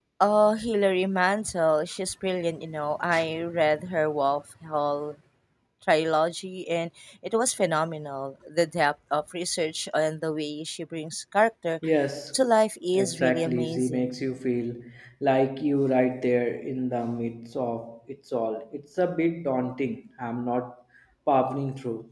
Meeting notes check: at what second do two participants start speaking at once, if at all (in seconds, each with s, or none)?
12.9 s